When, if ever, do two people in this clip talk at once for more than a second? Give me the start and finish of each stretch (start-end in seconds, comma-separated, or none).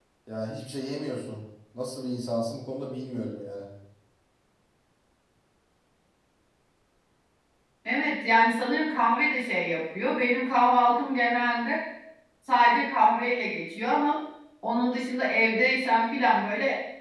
none